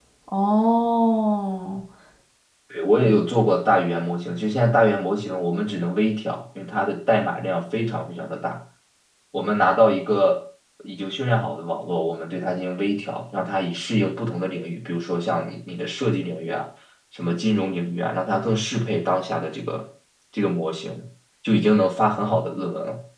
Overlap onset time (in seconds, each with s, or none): none